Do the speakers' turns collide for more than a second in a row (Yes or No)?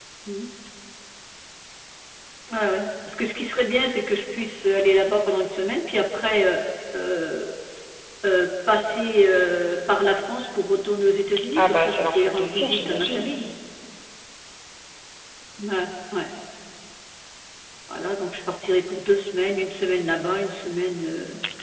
Yes